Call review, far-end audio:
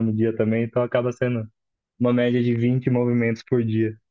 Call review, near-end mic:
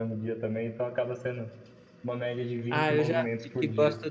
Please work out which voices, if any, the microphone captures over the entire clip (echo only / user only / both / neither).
both